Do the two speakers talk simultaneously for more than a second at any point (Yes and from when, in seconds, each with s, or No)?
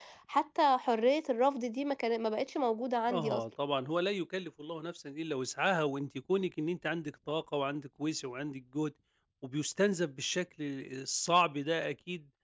No